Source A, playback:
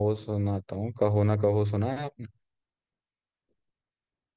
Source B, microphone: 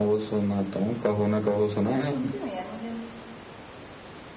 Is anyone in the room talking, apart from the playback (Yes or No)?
Yes